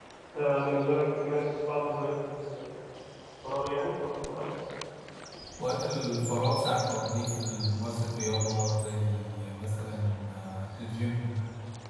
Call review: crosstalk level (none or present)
none